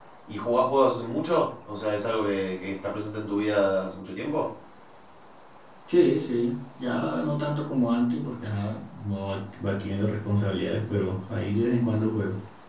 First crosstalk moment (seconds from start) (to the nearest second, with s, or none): none